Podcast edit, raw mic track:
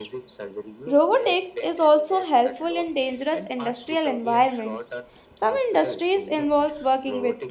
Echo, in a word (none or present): present